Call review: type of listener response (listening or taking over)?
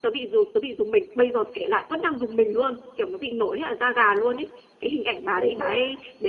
listening